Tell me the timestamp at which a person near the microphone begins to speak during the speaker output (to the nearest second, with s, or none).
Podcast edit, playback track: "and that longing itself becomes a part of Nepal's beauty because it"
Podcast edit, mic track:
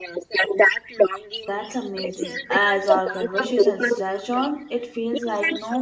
1 s